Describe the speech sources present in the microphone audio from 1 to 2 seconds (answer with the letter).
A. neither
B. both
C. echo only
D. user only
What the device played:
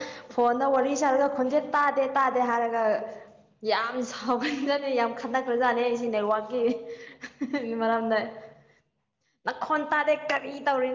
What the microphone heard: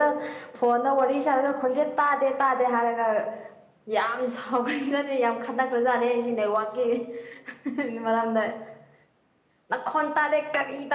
C